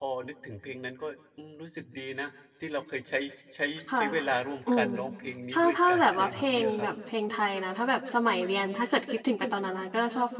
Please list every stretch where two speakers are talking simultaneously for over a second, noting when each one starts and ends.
5.5-6.9

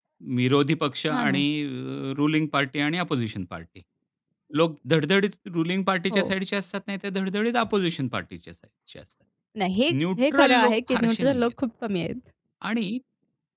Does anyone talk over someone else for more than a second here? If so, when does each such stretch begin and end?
10.2-11.5

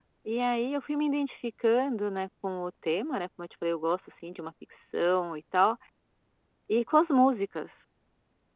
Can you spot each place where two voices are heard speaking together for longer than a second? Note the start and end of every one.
none

